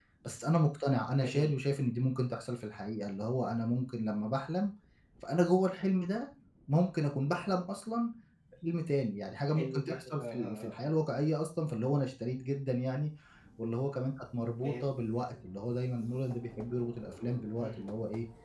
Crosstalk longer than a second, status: present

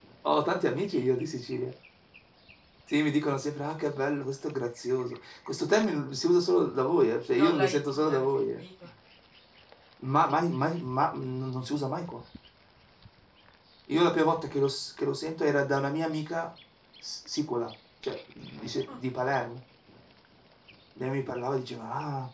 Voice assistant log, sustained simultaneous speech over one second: present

